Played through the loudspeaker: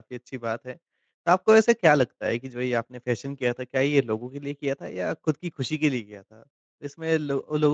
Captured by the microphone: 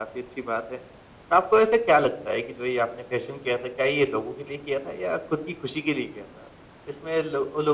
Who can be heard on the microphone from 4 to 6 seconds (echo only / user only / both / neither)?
echo only